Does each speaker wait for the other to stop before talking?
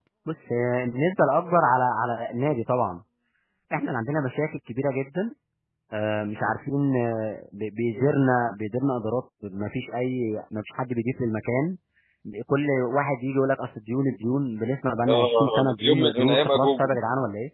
No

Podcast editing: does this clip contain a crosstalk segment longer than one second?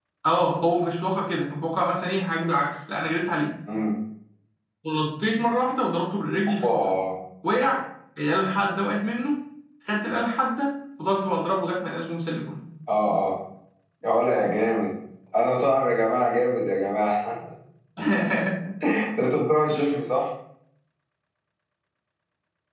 No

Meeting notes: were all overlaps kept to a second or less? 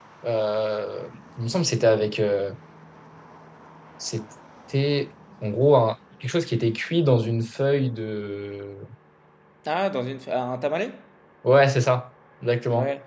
Yes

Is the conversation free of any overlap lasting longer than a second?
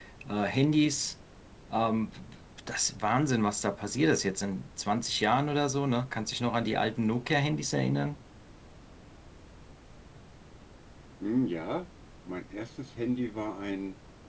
Yes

